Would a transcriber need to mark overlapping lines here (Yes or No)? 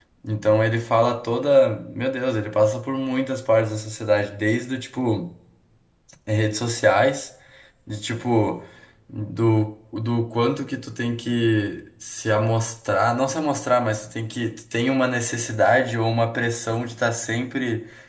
No